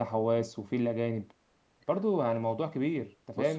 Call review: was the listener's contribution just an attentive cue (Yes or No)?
No